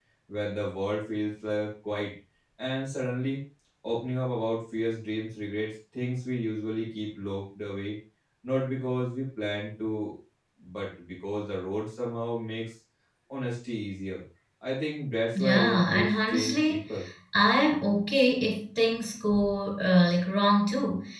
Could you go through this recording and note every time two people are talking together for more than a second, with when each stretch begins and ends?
15.3-16.8

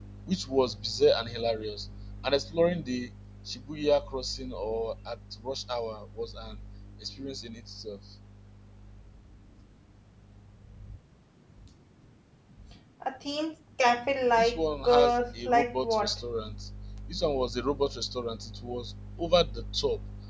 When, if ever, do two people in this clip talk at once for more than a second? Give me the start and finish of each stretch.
14.3-16.1

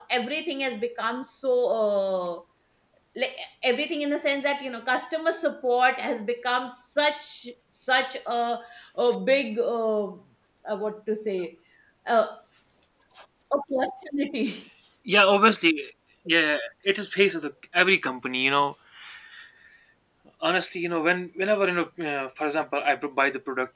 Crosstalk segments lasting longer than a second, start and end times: none

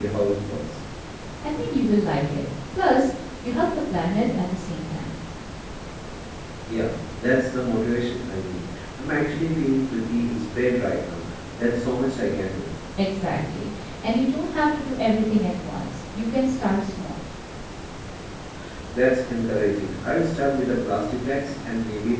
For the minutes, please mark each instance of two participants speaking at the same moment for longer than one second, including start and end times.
none

